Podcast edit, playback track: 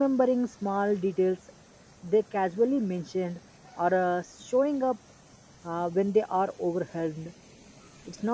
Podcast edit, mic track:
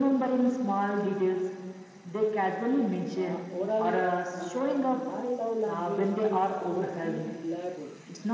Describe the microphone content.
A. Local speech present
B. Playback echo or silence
A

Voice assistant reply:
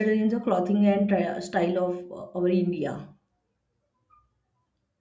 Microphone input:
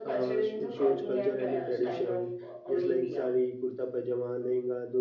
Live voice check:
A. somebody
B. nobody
A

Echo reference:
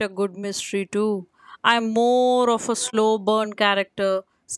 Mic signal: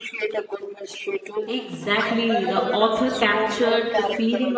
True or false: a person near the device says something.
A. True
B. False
A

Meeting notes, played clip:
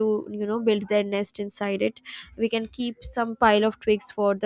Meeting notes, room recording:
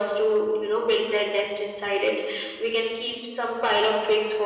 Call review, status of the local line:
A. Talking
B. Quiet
B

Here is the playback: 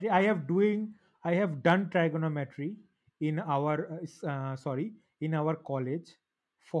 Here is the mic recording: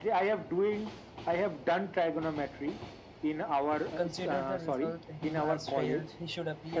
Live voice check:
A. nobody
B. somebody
B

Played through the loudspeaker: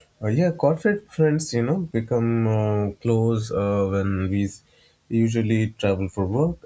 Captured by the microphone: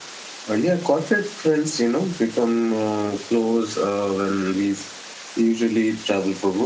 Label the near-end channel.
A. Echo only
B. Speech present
A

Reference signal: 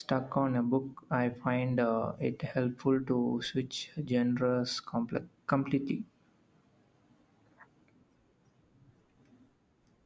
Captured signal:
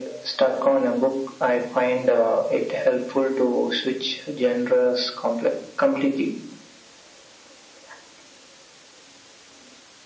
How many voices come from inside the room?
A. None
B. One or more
A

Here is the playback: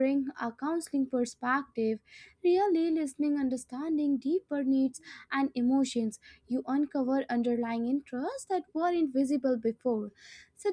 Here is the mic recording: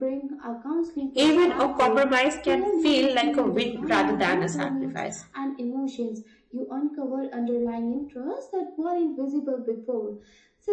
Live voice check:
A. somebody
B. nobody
A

